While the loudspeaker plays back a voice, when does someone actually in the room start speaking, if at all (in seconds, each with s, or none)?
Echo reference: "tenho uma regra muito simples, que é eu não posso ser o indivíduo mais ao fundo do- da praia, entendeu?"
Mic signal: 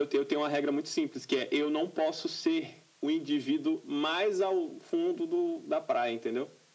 none